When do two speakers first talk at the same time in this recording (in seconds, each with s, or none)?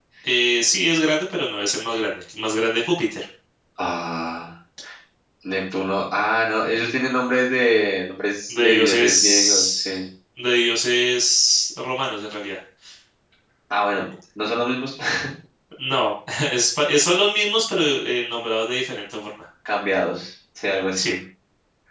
8.5 s